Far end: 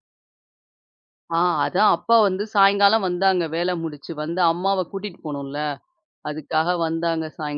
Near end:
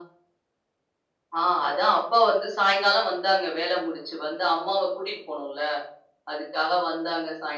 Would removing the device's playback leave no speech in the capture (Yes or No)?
Yes